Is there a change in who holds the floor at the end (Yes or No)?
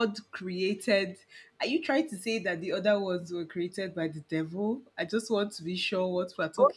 Yes